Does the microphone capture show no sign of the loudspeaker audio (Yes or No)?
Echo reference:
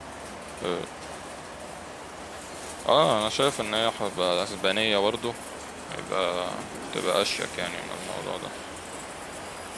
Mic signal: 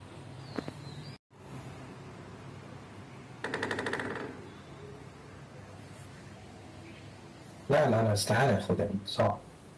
Yes